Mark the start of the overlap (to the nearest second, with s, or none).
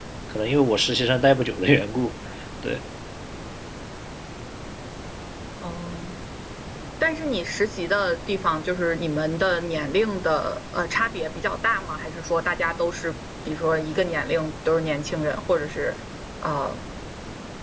none